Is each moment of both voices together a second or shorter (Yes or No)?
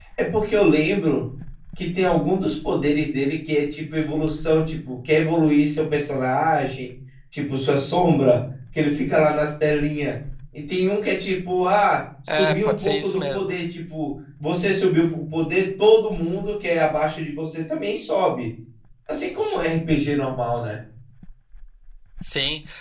No